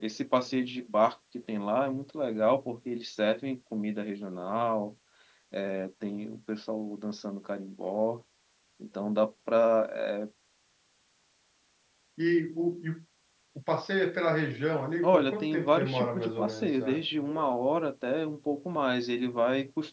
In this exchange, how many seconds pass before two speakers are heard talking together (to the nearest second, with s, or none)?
15 s